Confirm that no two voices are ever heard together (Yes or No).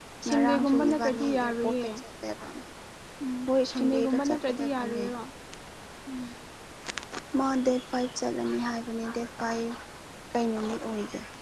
No